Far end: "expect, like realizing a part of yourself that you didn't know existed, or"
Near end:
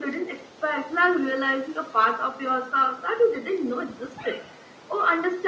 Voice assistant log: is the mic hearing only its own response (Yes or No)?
Yes